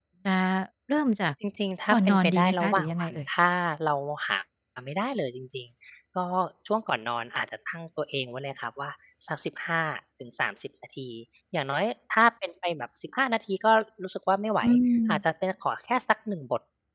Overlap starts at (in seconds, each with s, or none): 1.9 s